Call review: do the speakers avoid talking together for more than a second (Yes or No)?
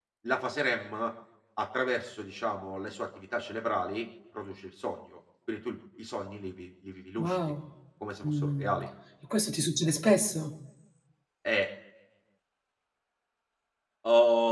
Yes